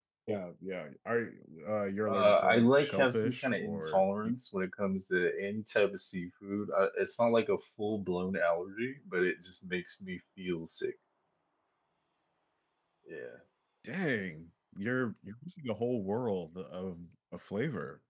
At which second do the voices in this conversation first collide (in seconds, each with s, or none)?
2.1 s